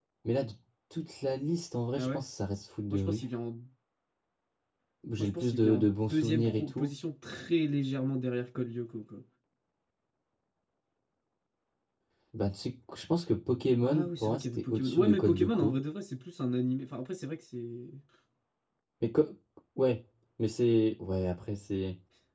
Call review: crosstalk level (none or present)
present